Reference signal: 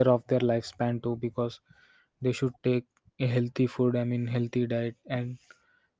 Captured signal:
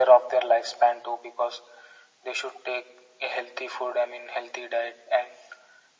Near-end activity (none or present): none